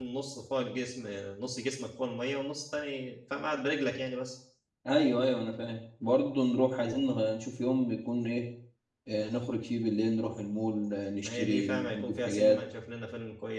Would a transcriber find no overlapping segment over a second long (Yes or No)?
No